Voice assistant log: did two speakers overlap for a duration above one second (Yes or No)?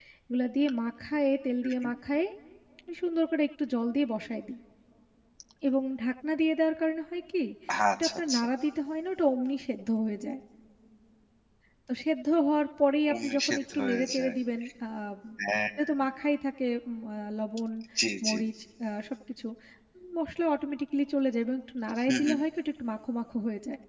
Yes